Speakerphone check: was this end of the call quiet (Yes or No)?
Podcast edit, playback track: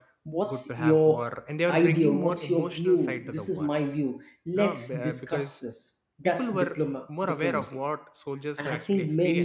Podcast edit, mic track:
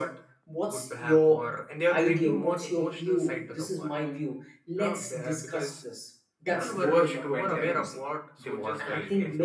No